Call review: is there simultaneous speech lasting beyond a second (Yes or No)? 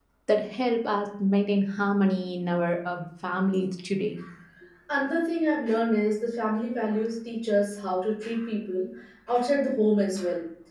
No